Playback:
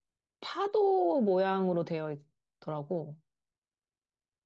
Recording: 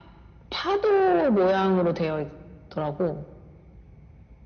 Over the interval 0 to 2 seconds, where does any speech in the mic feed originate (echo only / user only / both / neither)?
echo only